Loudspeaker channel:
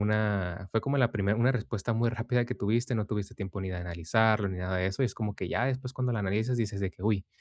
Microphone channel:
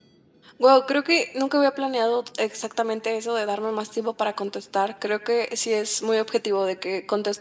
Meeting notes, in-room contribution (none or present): present